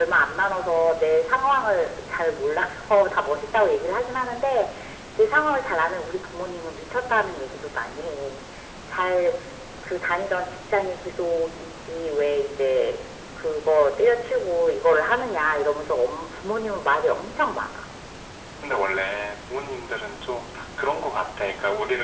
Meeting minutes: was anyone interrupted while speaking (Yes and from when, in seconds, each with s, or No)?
No